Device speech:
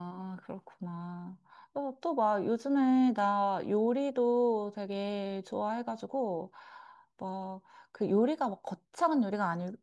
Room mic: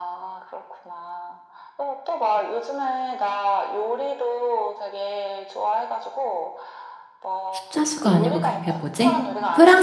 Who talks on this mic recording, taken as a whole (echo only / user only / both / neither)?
both